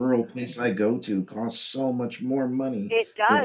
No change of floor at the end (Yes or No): Yes